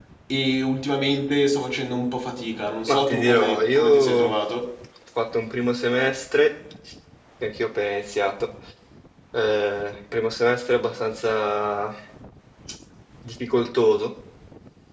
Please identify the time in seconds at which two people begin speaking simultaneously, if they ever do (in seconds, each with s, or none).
2.9 s